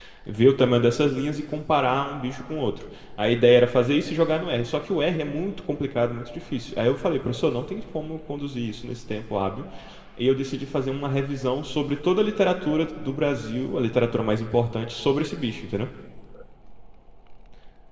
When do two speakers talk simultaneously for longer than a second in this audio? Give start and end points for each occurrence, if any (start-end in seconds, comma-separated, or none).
none